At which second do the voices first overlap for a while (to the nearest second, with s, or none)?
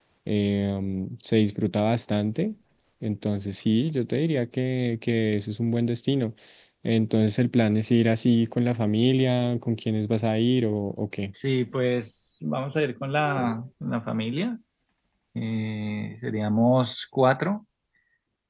none